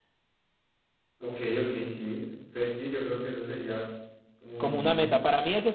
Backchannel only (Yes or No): No